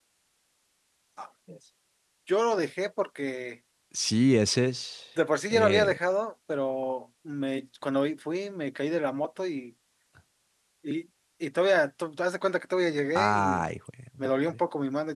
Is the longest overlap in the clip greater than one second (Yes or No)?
No